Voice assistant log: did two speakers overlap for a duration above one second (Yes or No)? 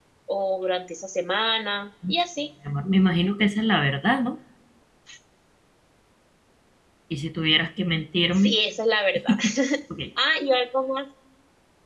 No